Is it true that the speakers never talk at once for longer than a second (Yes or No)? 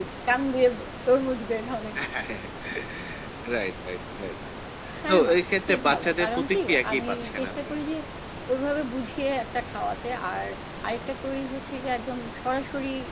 No